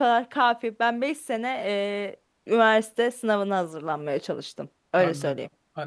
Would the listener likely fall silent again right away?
No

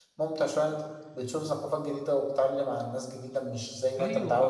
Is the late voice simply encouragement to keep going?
No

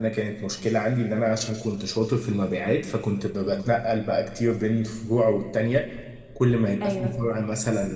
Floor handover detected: No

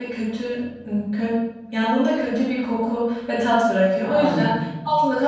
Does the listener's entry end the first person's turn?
No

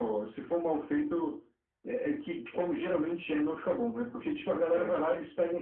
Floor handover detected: No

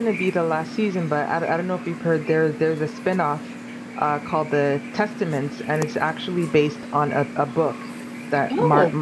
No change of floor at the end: Yes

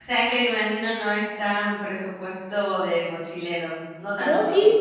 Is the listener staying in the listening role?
No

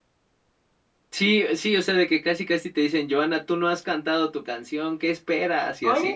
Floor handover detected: Yes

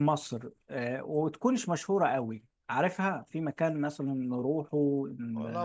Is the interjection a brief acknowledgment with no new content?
No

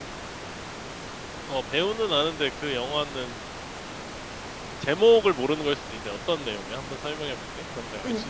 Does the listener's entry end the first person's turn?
Yes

